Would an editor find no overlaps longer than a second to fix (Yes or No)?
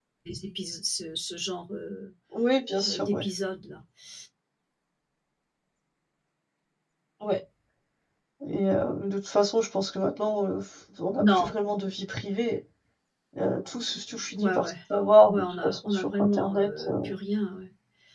No